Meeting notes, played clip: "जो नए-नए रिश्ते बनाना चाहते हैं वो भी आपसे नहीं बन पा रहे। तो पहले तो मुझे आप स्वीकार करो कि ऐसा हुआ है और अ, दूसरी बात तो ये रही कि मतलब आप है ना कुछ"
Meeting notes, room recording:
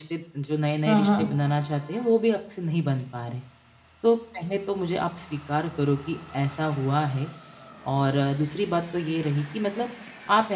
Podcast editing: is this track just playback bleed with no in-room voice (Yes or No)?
No